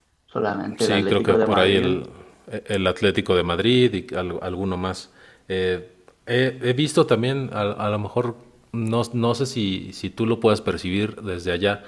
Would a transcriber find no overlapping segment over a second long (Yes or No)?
No